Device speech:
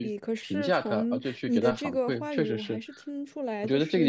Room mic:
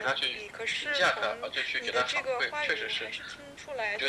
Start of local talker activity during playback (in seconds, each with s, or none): none